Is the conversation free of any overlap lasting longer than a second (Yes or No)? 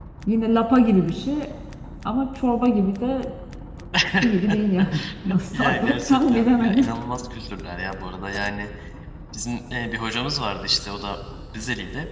No